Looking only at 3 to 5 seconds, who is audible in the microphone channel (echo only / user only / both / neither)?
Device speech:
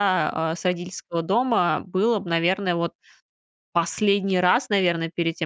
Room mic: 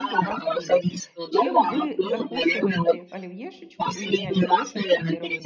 both